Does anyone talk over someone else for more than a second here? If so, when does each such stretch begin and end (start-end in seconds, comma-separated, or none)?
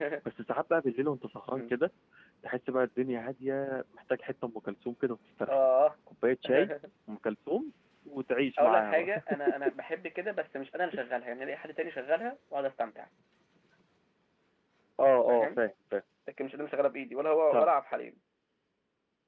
none